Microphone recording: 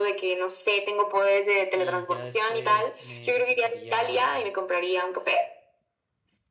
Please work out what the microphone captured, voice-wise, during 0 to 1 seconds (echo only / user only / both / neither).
echo only